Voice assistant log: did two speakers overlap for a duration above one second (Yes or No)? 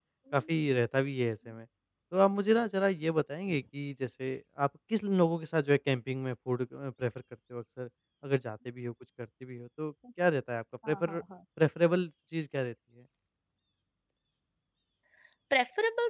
No